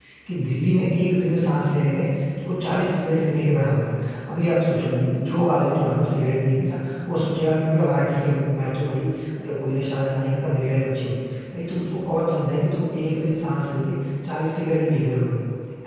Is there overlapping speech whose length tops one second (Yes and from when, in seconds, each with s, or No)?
No